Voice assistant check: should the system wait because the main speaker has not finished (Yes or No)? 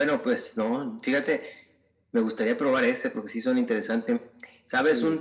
Yes